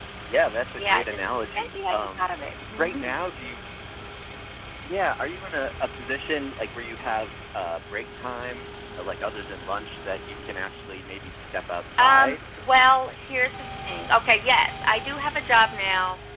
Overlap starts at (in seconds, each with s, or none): 0.8 s